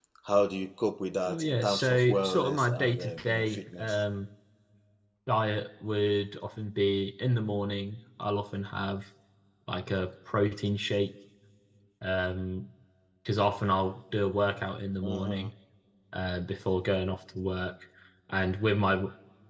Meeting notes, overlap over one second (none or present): present